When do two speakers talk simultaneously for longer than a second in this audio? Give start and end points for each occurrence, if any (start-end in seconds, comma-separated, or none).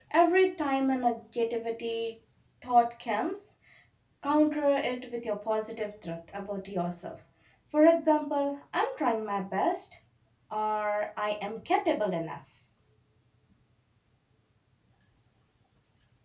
none